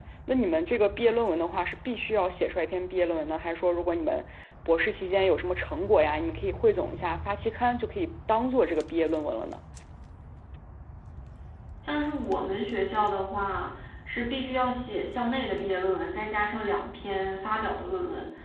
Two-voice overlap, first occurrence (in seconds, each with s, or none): none